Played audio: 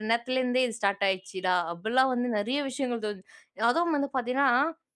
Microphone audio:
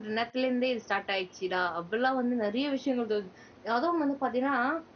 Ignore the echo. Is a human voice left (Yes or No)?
No